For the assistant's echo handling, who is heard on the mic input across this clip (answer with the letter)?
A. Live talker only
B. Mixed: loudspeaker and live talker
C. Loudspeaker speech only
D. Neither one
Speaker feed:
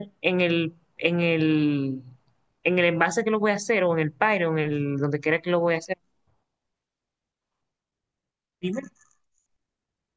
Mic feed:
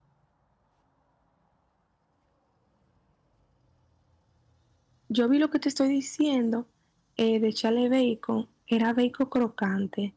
A